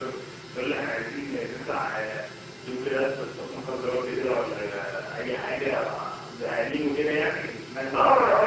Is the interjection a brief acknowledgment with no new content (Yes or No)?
No